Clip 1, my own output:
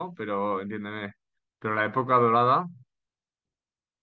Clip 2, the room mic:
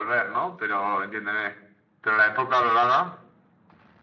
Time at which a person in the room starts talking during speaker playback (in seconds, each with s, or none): none